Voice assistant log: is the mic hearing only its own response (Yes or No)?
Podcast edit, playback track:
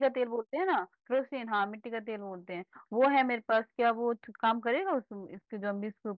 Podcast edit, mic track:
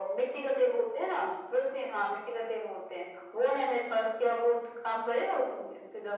Yes